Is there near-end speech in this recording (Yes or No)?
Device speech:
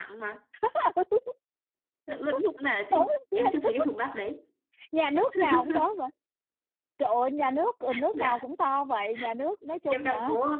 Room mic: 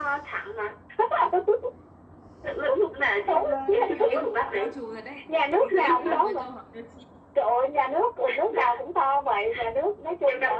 Yes